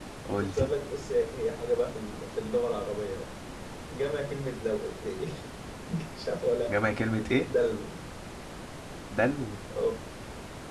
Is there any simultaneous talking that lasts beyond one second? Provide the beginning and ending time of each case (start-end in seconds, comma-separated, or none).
none